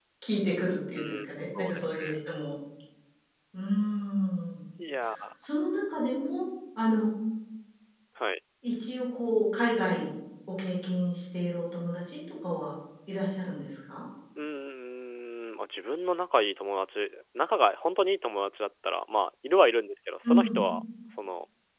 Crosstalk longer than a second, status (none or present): present